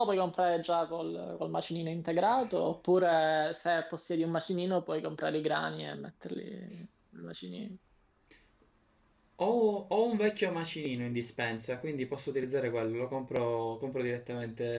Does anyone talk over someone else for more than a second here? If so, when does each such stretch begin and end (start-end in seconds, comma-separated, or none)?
none